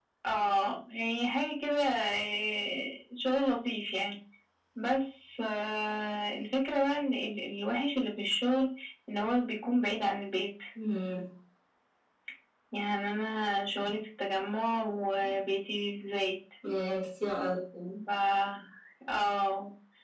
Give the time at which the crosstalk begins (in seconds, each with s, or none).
none